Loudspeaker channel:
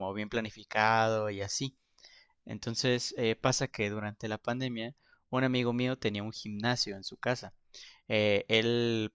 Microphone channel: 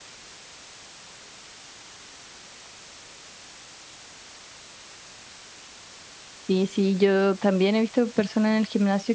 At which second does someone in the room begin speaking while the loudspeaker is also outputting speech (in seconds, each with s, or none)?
6.4 s